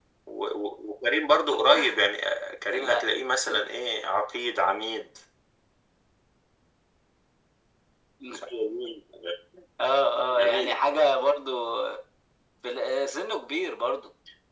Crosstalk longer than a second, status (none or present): none